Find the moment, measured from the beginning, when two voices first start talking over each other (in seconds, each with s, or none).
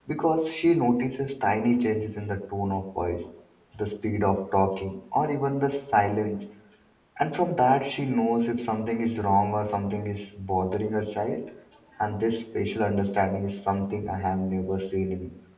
none